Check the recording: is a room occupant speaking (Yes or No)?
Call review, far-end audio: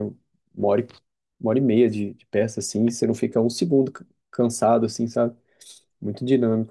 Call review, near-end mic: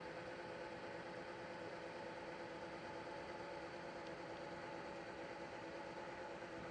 No